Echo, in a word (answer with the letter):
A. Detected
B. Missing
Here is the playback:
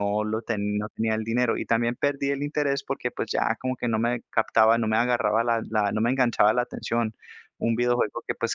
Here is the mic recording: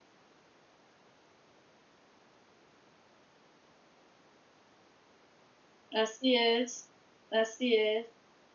B